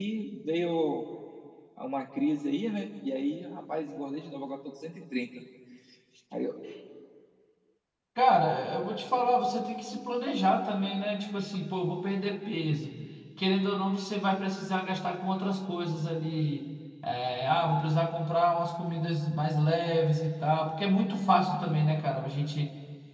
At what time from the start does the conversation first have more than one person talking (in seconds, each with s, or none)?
none